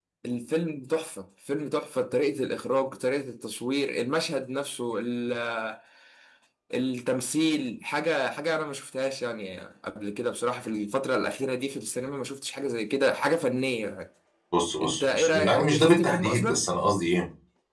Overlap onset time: 14.8 s

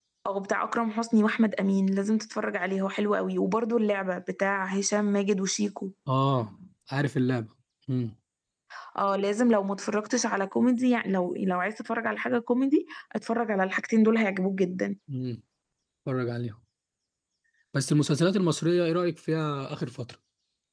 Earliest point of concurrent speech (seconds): none

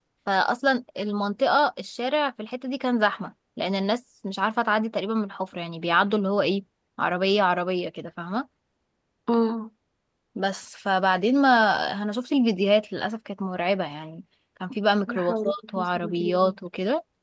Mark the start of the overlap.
15.1 s

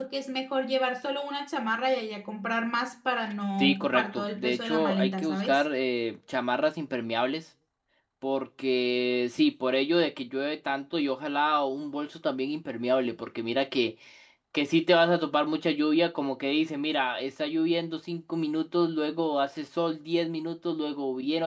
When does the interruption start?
3.6 s

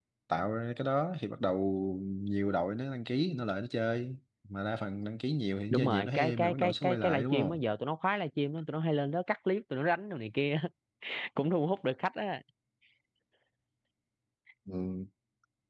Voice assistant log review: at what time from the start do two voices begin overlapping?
5.7 s

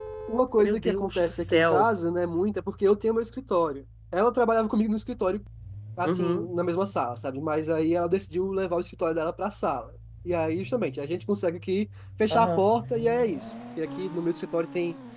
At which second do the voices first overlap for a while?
0.6 s

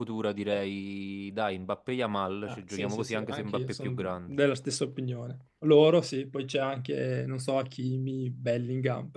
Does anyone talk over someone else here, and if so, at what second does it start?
2.5 s

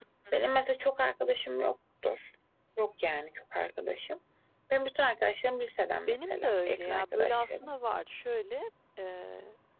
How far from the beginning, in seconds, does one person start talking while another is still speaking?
6.1 s

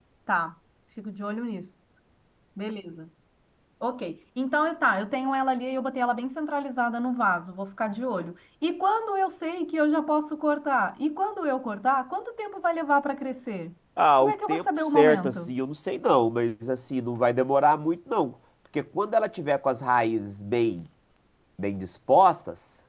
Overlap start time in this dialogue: 14.2 s

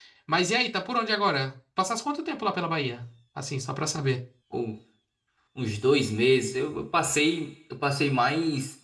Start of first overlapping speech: none

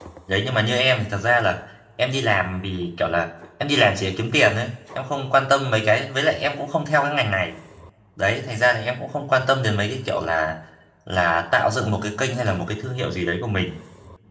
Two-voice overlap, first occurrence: none

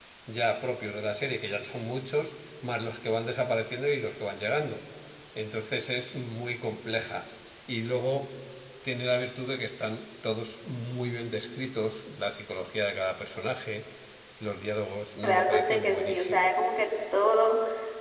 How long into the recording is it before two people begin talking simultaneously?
15.2 s

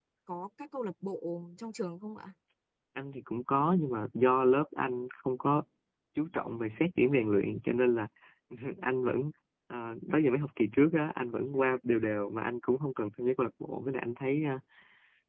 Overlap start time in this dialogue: none

